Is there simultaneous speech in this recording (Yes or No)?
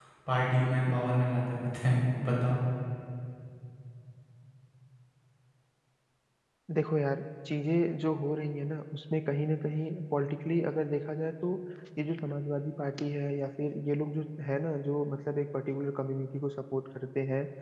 No